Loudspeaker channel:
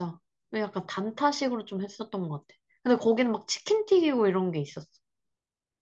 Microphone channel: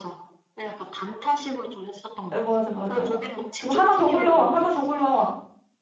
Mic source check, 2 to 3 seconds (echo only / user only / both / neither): both